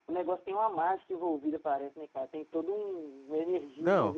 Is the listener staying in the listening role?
Yes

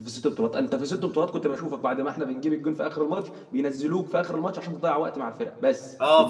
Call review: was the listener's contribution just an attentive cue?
No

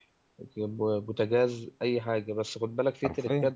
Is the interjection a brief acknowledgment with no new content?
Yes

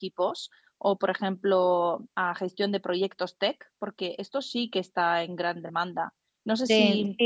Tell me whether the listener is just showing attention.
No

